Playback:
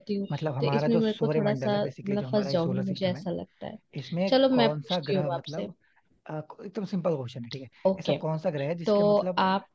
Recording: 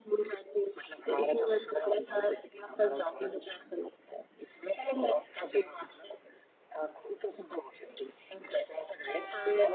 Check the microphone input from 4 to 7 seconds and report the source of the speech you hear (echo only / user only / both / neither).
echo only